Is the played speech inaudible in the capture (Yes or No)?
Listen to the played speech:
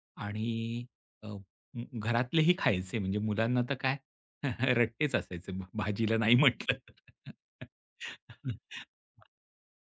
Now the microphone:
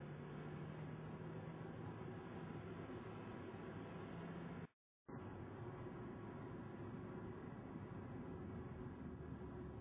Yes